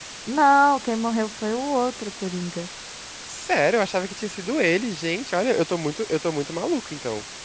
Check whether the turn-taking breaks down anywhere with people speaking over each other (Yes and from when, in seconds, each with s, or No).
No